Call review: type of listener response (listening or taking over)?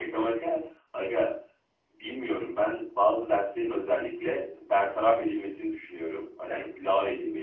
listening